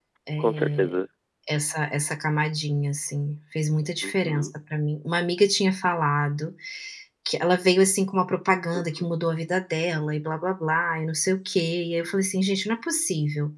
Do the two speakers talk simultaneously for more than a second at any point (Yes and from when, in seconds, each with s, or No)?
No